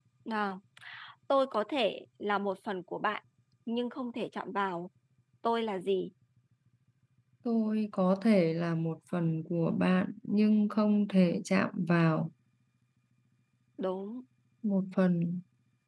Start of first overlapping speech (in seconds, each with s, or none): none